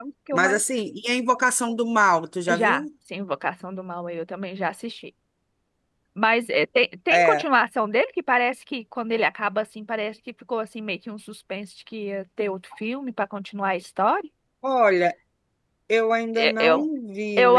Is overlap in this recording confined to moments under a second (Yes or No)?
Yes